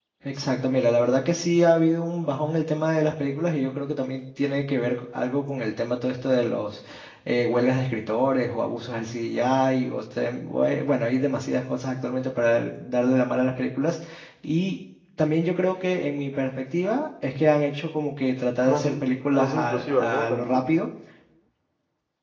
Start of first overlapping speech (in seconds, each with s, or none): 18.6 s